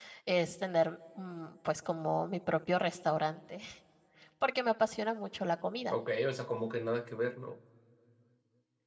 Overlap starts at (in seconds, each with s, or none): none